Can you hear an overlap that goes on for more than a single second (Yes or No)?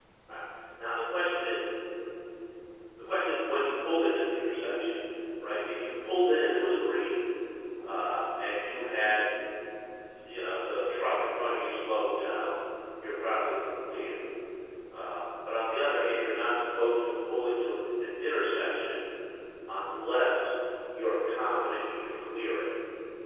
No